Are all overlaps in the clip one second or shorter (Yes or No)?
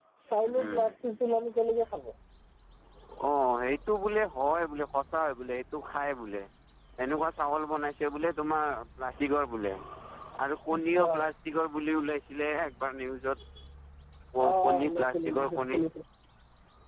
No